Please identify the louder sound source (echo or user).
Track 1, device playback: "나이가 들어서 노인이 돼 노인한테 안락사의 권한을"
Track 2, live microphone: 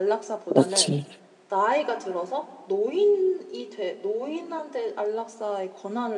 user